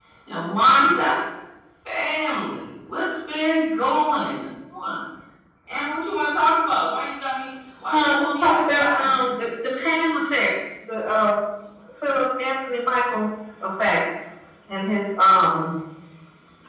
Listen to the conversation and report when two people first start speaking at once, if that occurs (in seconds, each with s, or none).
7.9 s